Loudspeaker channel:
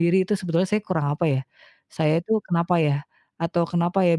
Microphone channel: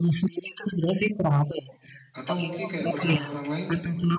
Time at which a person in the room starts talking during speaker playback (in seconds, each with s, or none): 2.1 s